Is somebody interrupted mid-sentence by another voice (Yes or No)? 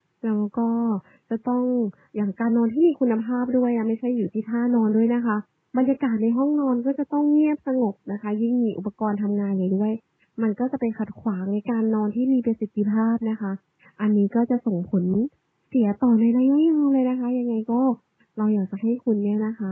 No